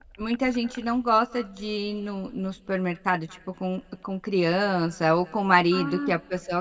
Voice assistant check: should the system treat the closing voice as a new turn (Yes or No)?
No